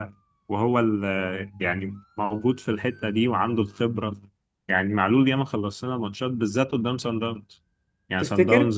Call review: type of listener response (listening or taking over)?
listening